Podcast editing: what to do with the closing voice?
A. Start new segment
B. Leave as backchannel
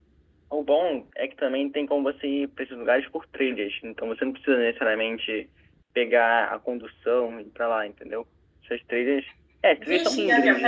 A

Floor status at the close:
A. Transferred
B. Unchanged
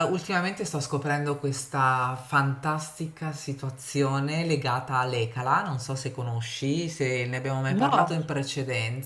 B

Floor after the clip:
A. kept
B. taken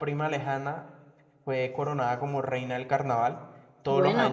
A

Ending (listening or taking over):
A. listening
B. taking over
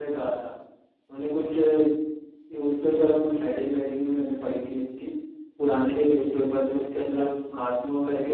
A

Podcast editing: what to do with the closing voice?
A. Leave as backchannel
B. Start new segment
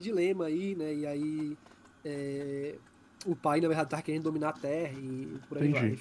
B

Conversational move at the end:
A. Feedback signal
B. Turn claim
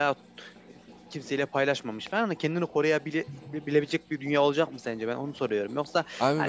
A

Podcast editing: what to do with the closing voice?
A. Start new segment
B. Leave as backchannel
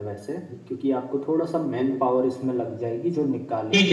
A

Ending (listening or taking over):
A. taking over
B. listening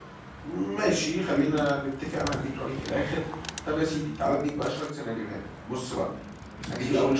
B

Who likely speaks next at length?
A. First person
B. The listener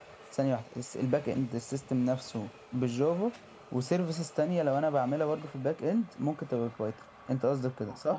B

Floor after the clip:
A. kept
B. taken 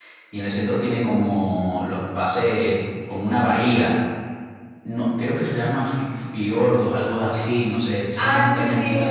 B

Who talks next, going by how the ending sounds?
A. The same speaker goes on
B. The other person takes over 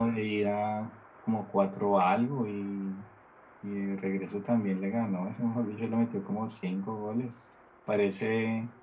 A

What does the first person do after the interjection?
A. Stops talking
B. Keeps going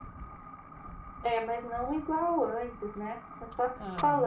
A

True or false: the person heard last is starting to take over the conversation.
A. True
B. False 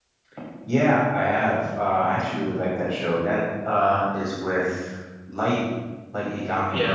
A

